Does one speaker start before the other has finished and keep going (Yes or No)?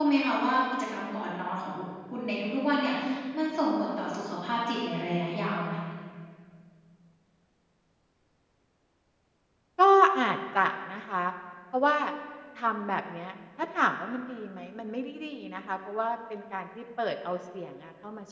No